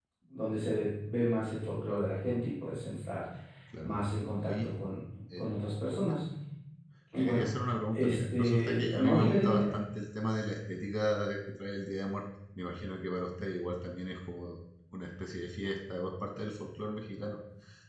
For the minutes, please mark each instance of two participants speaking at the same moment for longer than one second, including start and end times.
7.9-9.7

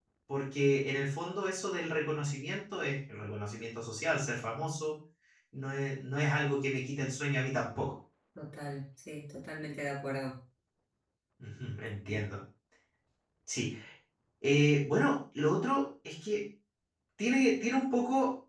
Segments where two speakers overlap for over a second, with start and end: none

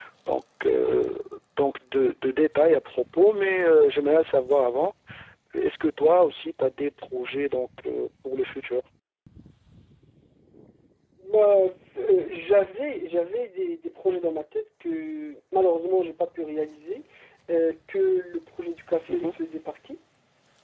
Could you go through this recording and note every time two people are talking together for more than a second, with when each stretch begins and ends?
none

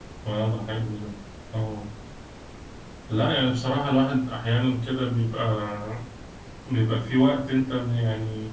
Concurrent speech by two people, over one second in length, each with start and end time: none

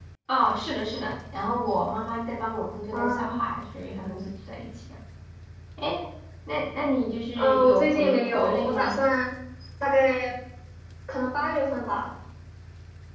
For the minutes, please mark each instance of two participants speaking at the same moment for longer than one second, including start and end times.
7.4-9.0

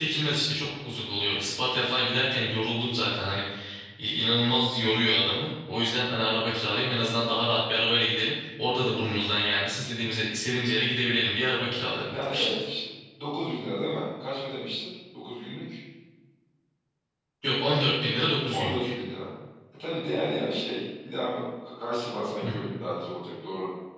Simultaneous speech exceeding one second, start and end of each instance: none

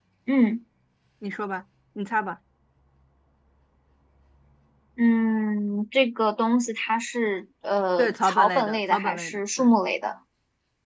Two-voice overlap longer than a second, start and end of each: 8.0-9.7

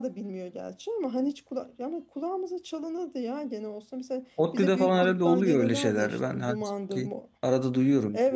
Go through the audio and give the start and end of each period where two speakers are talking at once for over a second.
4.5-7.1

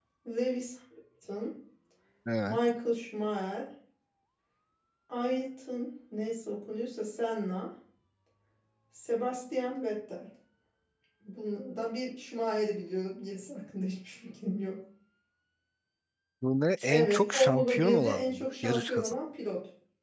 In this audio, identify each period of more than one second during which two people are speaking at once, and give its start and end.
16.9-19.2

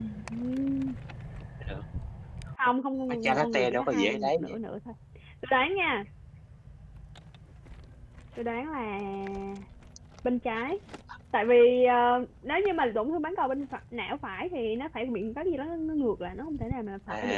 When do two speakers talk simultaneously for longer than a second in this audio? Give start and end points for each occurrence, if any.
3.1-4.6

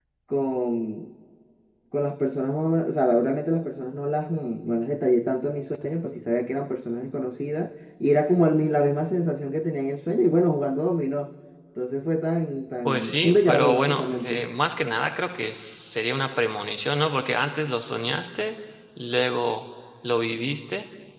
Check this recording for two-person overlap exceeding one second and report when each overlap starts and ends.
12.8-14.4

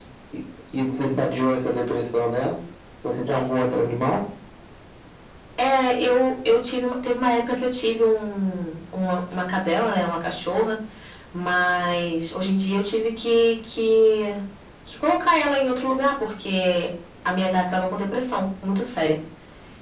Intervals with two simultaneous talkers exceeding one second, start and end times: none

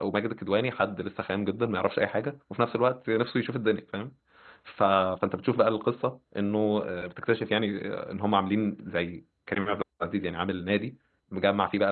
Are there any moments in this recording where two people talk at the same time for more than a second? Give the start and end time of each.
none

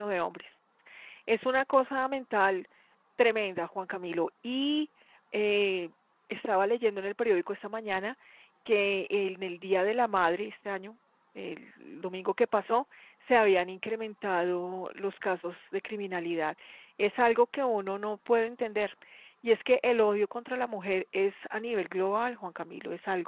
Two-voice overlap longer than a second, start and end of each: none

